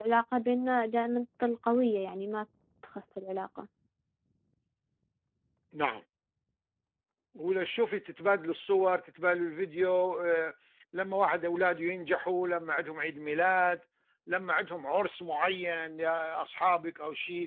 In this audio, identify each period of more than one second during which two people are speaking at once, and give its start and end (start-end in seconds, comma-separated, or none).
none